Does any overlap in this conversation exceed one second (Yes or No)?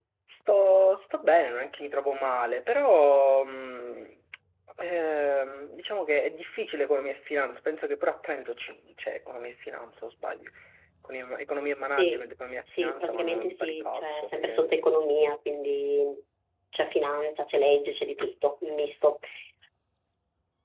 Yes